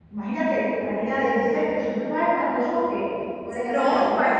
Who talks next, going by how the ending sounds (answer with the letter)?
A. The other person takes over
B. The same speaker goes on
A